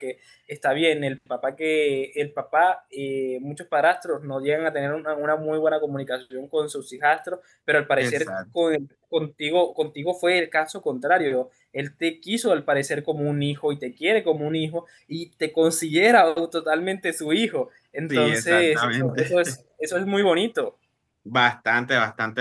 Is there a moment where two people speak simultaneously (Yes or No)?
Yes